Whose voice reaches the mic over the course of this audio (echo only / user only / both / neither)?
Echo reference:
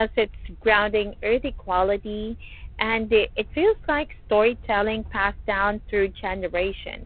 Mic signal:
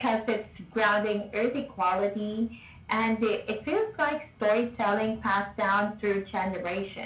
echo only